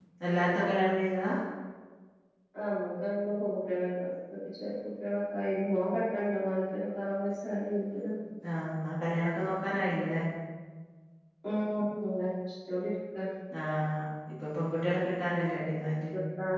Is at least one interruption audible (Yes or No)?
No